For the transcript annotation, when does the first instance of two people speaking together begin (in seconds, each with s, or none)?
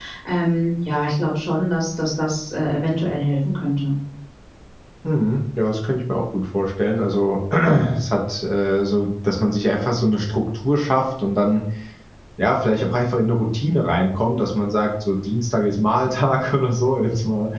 none